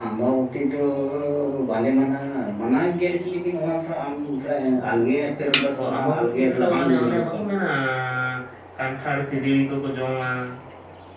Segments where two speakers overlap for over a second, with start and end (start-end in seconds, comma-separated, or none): 6.0-7.4